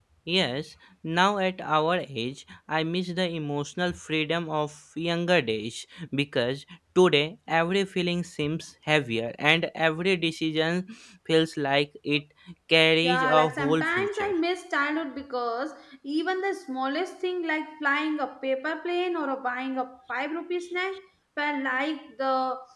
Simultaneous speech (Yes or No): Yes